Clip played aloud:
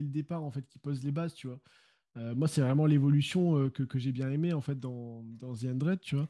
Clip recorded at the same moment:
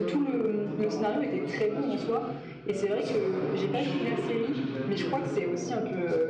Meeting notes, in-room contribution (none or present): present